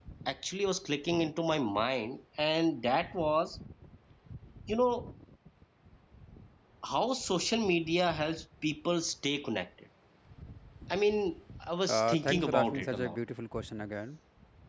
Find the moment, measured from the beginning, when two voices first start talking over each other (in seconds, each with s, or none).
11.9 s